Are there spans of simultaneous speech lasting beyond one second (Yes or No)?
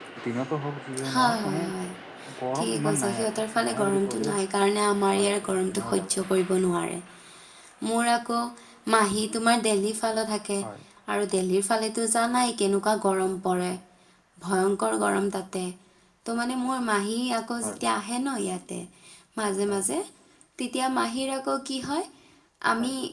Yes